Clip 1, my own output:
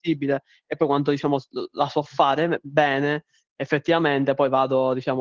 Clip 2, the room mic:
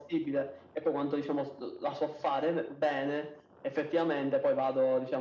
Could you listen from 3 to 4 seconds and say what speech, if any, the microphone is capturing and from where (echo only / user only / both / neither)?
echo only